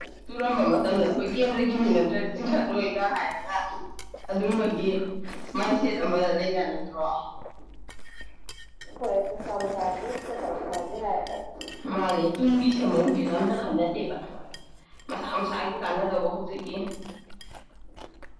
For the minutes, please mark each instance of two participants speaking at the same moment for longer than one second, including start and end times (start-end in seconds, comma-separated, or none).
none